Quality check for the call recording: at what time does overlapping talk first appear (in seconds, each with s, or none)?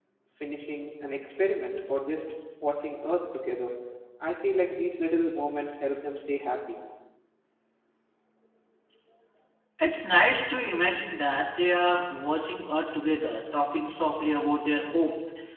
none